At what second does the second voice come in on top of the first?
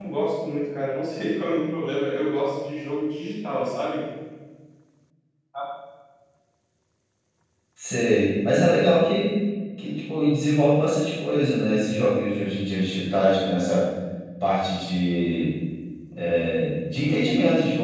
none

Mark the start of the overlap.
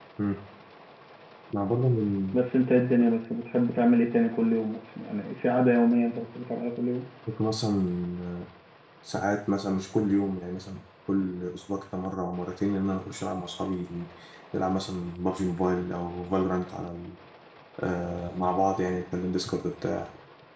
none

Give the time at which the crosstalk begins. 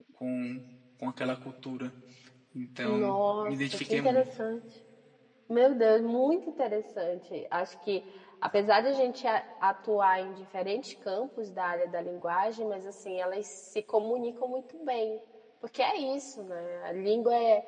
2.8 s

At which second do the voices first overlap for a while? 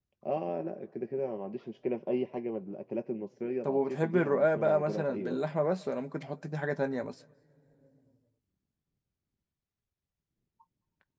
3.6 s

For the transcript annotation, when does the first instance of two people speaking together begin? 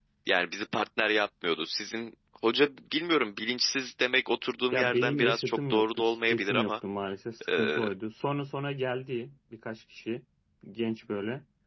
4.7 s

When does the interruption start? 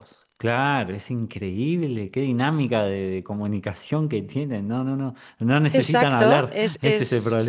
5.7 s

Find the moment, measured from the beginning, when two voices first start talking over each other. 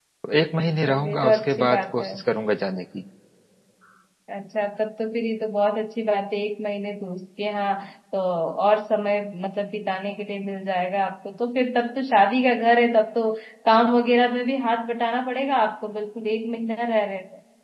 0.6 s

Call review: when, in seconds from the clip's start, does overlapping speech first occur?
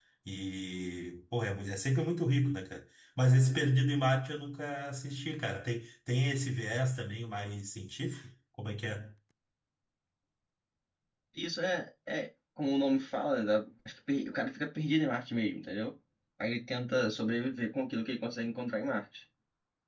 none

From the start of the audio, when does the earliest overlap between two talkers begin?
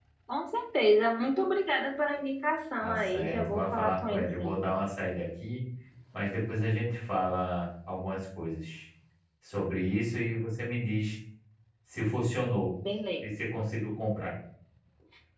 2.8 s

